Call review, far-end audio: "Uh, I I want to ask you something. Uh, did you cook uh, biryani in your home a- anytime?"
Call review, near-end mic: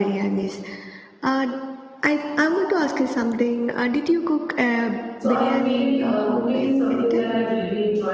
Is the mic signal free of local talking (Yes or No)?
No